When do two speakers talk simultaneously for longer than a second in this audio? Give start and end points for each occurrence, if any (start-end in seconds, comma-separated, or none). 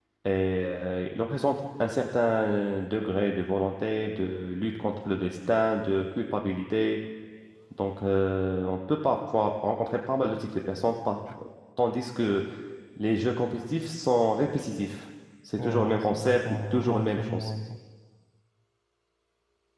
15.6-17.5